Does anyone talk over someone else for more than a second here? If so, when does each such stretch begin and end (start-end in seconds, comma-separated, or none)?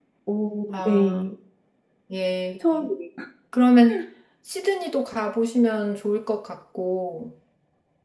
none